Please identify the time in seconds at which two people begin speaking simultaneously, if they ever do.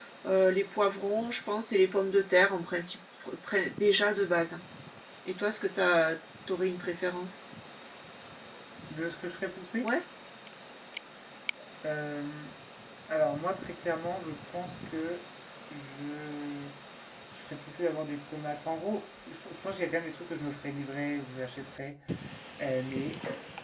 none

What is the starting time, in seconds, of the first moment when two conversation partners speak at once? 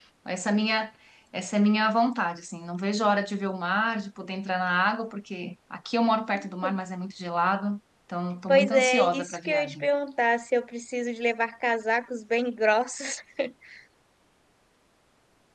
8.5 s

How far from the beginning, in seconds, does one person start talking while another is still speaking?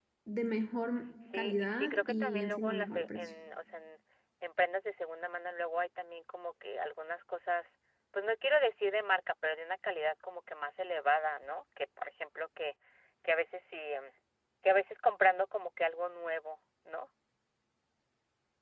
1.3 s

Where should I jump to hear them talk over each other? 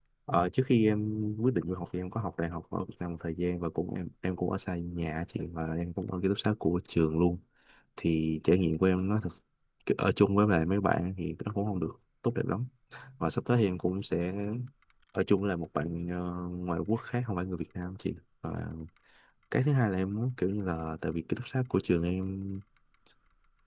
none

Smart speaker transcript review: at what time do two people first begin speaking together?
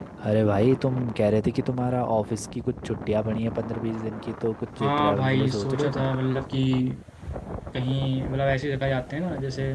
4.8 s

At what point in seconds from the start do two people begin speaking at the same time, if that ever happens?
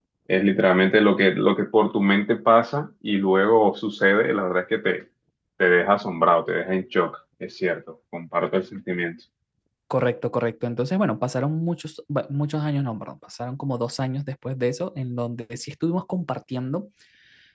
none

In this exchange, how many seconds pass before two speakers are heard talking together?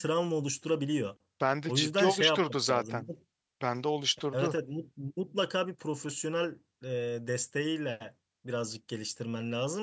1.7 s

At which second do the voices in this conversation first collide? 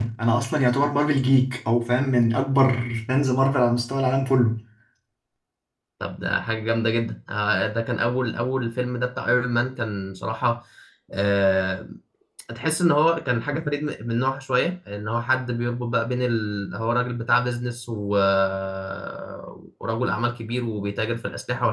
none

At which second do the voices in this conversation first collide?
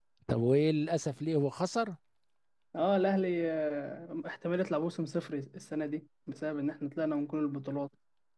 none

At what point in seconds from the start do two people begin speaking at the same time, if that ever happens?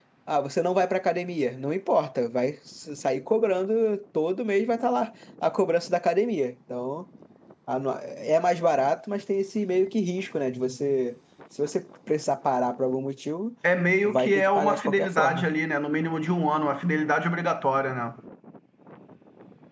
14.0 s

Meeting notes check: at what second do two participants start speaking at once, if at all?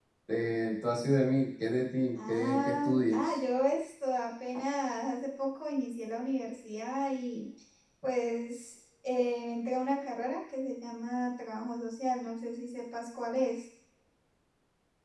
2.2 s

